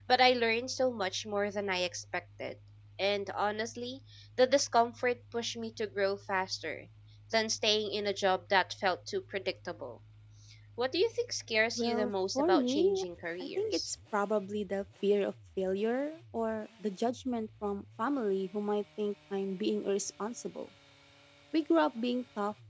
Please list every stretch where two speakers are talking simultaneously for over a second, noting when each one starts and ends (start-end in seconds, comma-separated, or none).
11.8-13.0